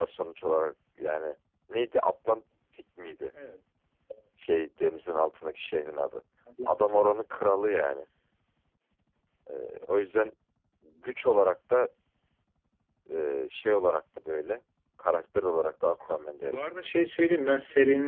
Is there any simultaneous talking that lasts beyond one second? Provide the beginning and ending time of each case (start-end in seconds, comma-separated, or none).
none